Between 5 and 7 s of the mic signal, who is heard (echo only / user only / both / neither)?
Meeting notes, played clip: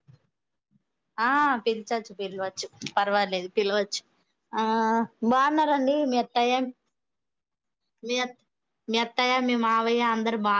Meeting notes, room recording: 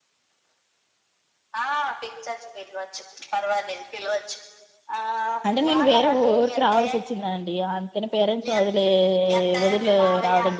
both